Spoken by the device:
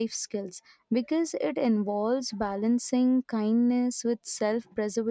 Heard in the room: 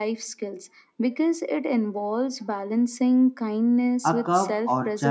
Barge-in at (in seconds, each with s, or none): 4.0 s